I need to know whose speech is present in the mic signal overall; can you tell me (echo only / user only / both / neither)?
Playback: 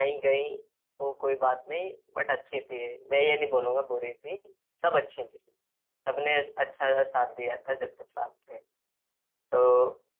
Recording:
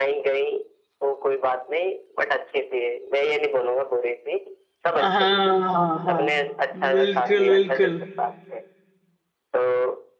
both